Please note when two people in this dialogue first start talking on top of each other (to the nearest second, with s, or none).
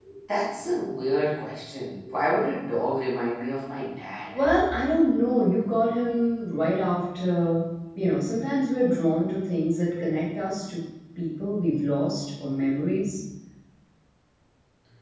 none